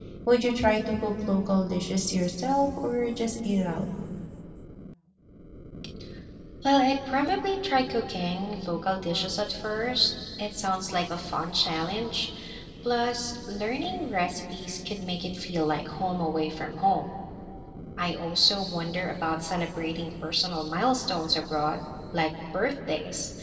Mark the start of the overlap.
none

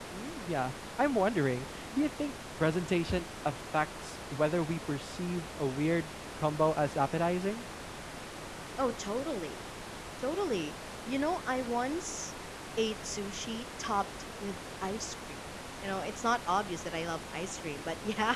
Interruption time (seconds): none

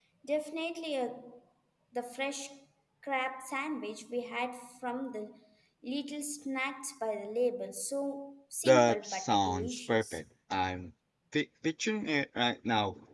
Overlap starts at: 9 s

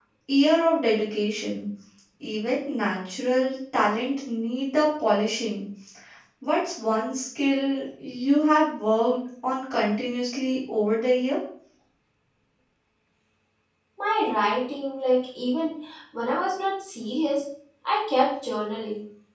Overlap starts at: none

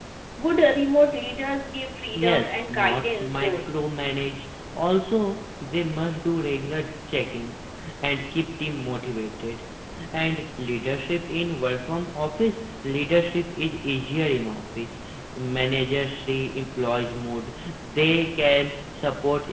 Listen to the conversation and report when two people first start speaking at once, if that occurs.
2 s

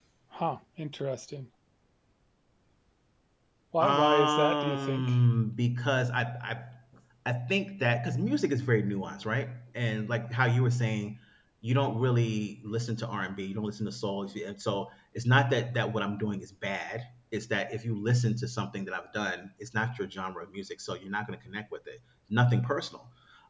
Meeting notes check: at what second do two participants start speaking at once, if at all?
4 s

